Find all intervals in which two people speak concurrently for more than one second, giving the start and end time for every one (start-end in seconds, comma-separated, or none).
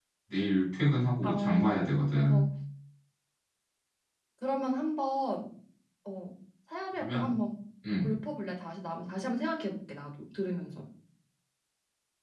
1.2-2.4